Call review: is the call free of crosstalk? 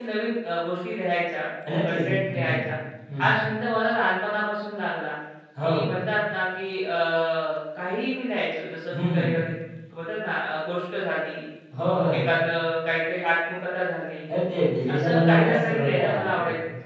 No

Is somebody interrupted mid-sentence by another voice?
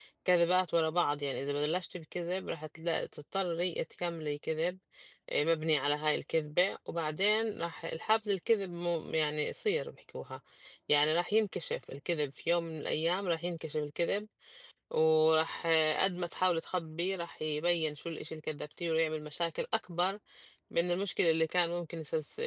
No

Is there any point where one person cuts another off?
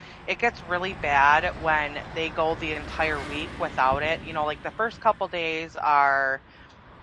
No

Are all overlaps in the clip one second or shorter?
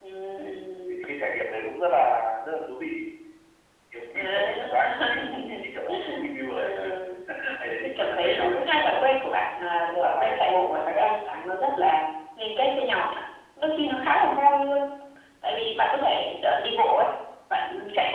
No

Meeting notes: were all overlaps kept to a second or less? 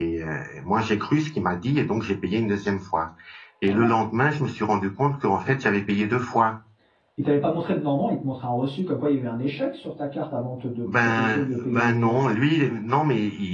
No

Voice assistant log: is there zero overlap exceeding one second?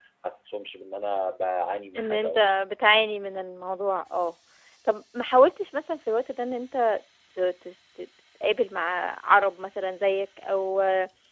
Yes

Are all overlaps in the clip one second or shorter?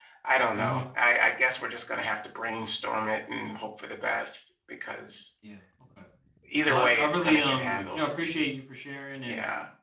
No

